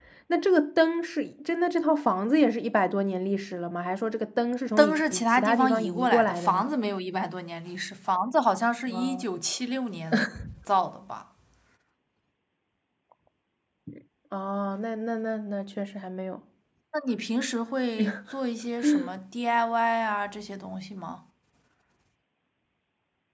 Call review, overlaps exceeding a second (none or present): present